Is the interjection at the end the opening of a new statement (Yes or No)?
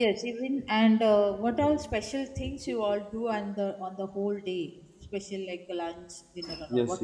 Yes